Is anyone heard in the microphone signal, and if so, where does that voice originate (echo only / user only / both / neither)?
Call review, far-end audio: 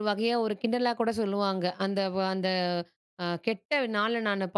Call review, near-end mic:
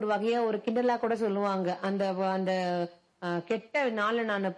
echo only